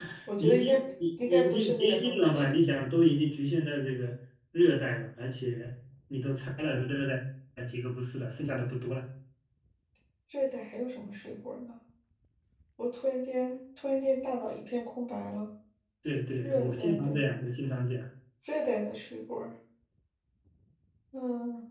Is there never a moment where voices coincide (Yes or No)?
No